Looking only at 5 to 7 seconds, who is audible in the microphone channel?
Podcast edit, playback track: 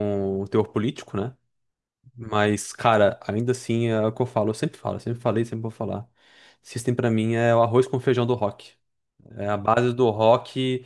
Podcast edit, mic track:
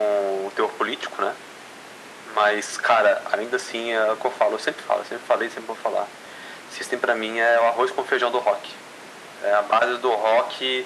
echo only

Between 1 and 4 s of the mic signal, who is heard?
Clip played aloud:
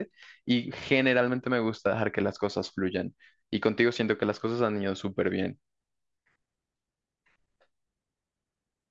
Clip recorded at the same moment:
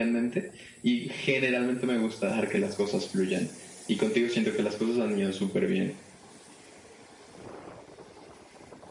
echo only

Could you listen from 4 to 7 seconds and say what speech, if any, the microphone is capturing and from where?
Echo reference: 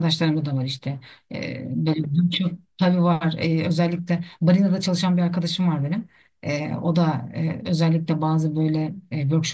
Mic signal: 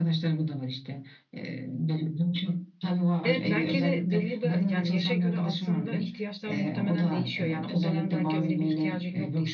both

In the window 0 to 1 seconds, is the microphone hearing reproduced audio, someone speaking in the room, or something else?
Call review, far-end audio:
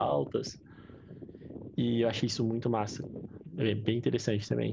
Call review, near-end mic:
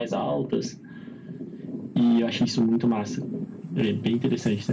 echo only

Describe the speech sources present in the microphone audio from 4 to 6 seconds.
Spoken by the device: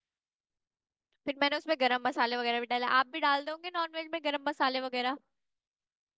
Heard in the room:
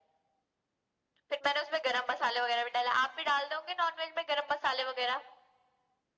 echo only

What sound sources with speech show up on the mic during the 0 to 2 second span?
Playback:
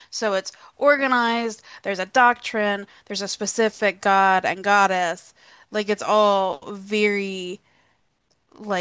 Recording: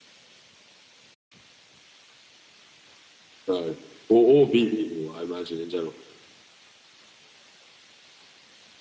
neither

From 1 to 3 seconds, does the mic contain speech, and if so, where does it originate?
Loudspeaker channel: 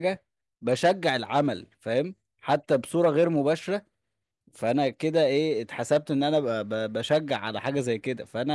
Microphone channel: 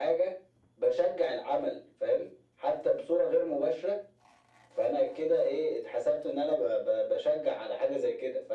echo only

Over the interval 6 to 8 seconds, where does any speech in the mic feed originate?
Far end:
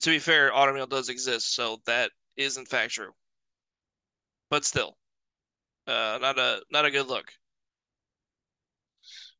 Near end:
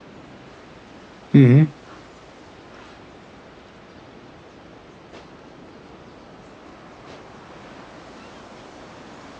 neither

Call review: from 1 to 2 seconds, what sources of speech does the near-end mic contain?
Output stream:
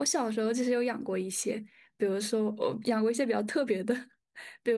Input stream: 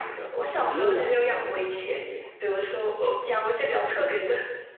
both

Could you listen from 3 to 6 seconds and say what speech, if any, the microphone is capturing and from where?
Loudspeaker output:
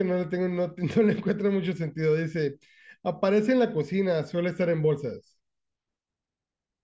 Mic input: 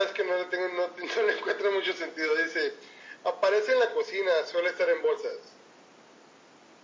echo only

